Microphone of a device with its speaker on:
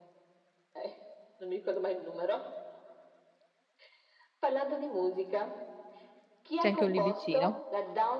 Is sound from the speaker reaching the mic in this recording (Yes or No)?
Yes